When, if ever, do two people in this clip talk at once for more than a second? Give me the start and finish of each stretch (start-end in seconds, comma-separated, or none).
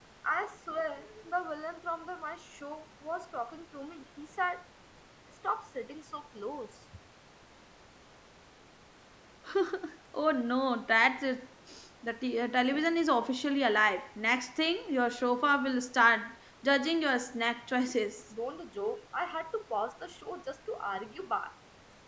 none